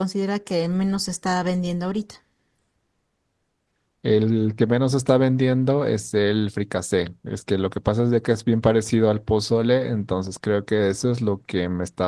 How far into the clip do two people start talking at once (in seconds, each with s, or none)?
none